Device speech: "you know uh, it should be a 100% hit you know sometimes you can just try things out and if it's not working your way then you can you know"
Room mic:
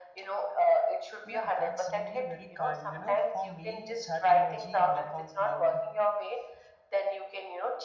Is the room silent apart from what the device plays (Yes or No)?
No